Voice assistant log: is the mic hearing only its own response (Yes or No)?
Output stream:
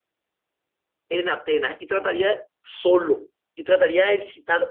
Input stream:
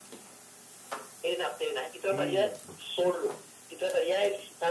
No